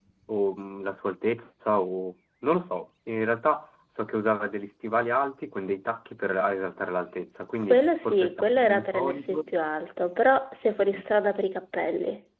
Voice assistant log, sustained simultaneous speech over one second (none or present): present